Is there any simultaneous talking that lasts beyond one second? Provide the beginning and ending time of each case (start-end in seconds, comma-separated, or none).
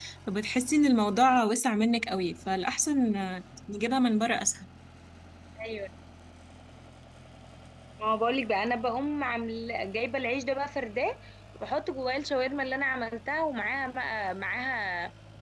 none